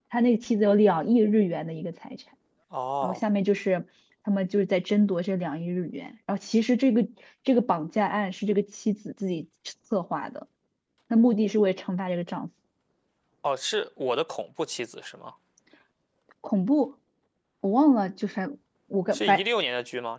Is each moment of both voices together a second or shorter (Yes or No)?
Yes